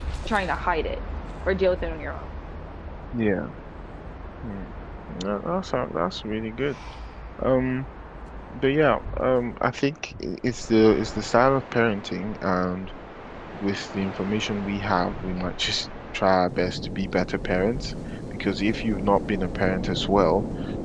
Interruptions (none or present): none